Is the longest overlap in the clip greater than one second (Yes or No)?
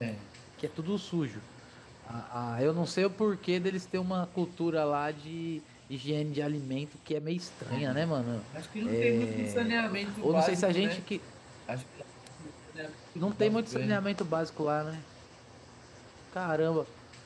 Yes